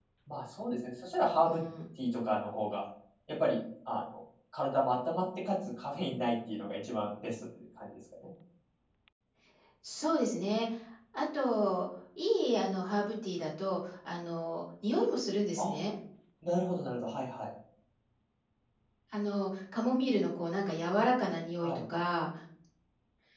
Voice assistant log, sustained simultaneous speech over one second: none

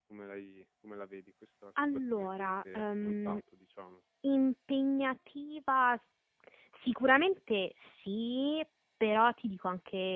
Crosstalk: present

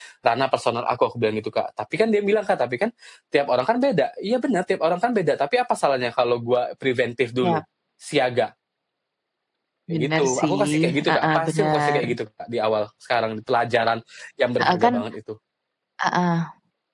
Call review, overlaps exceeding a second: present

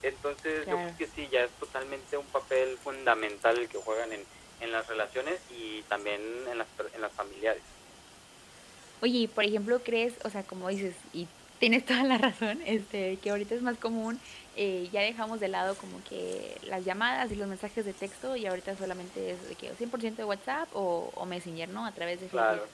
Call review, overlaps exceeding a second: none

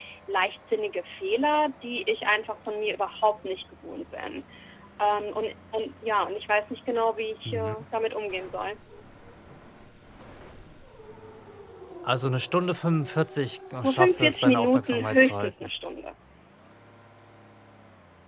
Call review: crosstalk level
present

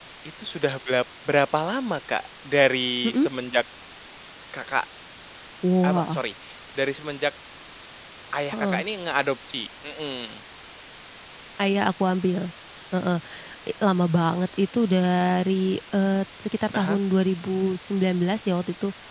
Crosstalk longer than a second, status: none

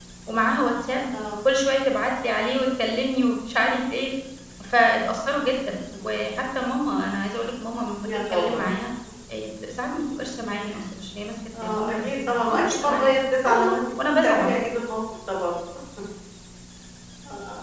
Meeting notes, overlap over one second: present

